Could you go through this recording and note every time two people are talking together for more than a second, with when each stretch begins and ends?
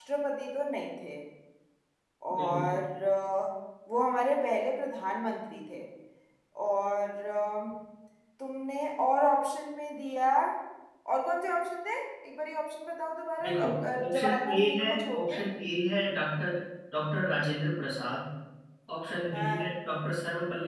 14.1-15.4

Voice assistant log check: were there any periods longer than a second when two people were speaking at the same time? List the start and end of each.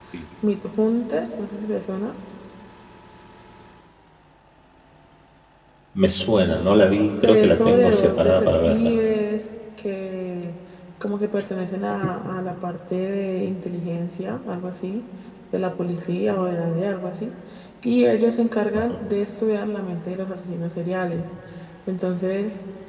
7.2-8.7

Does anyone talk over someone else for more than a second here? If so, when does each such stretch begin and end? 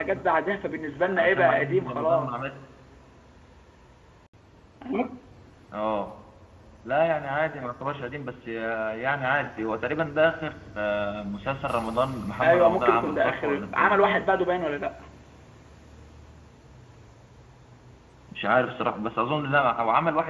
1.2-2.5, 12.4-14.3

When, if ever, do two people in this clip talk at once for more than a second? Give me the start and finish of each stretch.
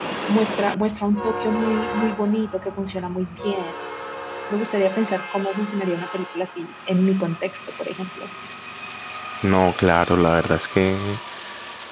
none

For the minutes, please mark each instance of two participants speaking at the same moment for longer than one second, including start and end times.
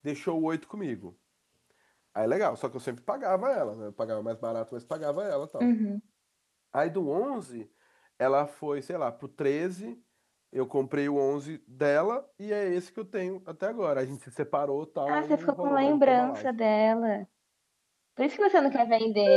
15.1-16.5

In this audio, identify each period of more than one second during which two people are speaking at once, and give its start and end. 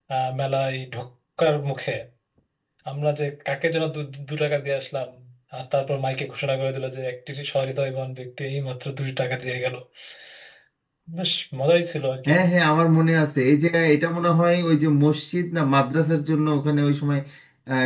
none

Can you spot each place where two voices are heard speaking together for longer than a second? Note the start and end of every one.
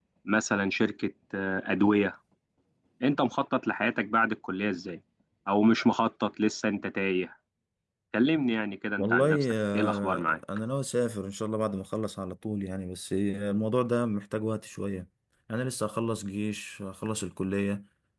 9.0-10.3

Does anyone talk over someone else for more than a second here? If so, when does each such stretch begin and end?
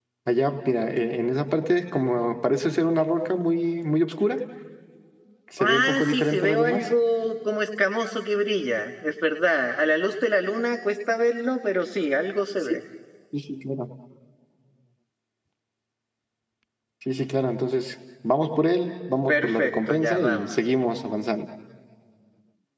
5.6-6.8, 19.3-20.5

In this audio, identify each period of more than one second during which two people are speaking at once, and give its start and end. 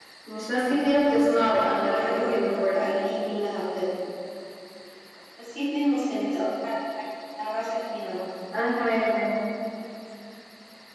1.4-2.8

